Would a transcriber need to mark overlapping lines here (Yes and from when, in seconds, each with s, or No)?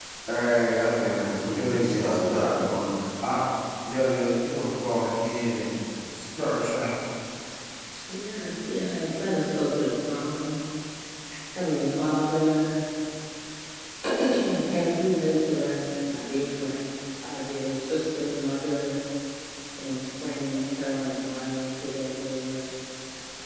Yes, from 1.0 s